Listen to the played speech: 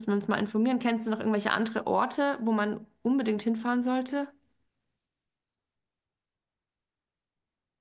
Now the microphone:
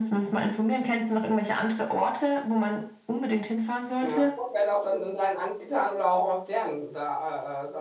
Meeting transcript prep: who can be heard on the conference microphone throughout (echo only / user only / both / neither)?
both